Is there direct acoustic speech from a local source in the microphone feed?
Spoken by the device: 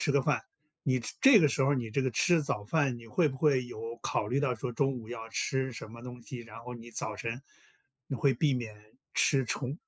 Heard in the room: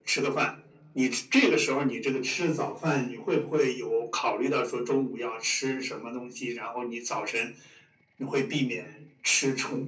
No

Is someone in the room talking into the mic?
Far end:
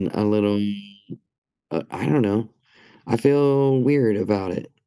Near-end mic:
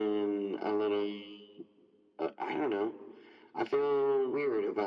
No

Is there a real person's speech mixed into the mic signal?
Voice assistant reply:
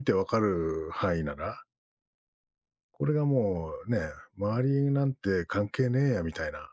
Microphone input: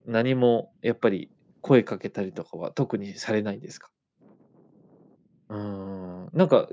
Yes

